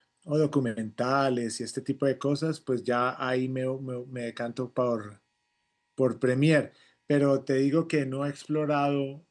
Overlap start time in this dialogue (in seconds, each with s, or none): none